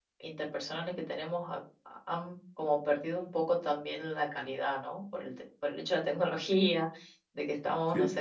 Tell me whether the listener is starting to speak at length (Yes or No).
No